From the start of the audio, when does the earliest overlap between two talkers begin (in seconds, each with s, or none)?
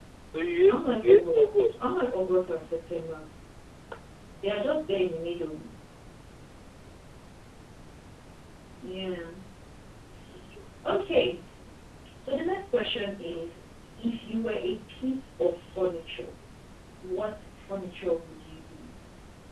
0.7 s